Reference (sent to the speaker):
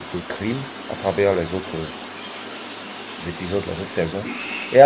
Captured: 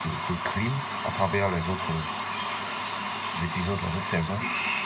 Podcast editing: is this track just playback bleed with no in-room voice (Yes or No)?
Yes